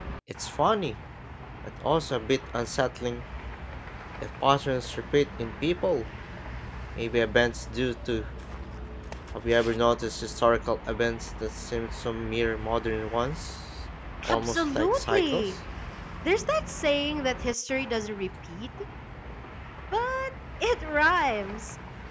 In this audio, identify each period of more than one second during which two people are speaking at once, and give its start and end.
14.3-15.6

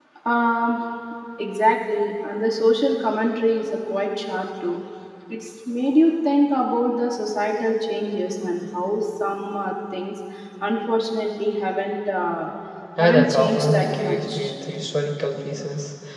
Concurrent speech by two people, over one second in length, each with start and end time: 13.0-14.5

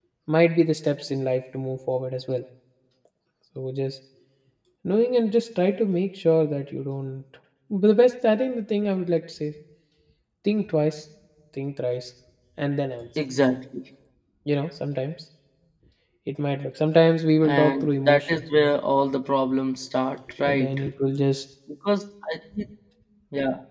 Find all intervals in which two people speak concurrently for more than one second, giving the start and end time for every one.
17.4-18.7

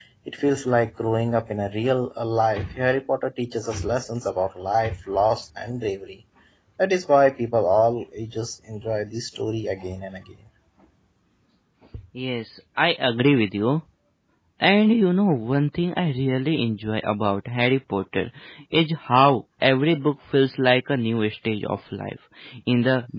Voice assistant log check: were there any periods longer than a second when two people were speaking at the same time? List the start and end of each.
none

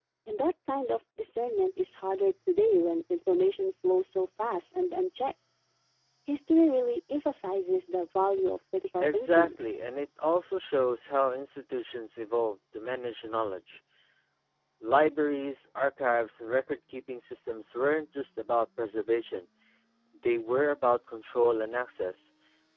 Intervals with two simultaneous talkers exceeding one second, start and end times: none

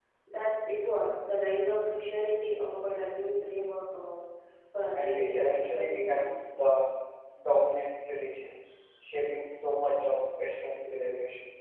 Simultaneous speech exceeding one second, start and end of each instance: 5.0-6.3

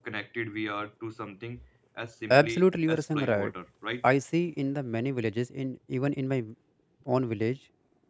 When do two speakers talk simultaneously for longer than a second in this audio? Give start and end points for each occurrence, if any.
2.3-3.5

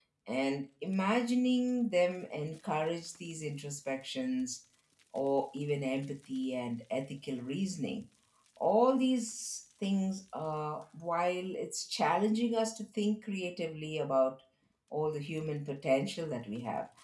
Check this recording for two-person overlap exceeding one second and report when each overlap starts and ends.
none

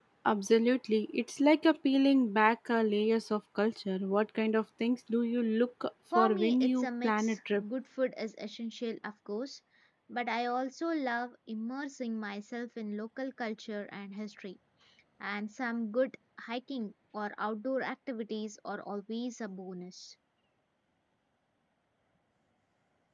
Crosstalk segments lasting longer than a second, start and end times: 6.2-7.6

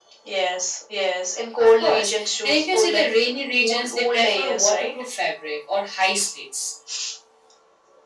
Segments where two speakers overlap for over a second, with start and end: 1.6-3.1, 3.6-4.9

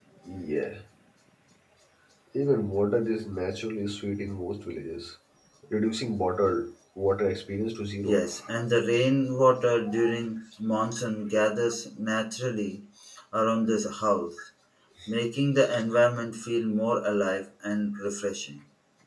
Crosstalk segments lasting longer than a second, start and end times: none

